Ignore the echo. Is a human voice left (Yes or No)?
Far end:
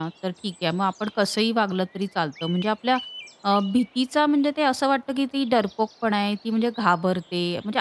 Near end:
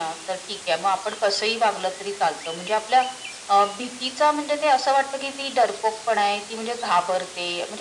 No